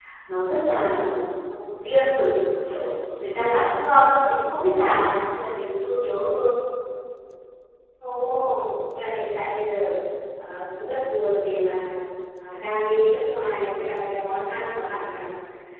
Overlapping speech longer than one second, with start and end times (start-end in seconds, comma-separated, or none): none